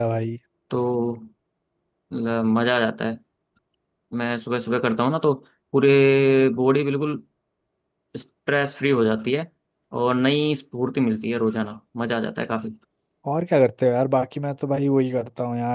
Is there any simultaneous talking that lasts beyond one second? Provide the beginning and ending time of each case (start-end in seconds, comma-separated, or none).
none